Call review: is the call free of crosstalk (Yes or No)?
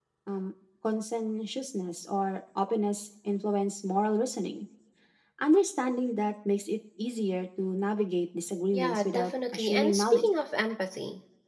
No